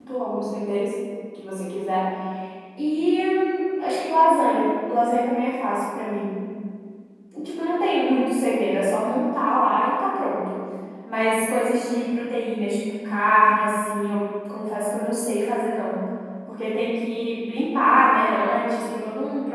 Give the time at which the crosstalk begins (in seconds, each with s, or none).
none